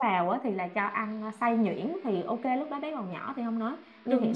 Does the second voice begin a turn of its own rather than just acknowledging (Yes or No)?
No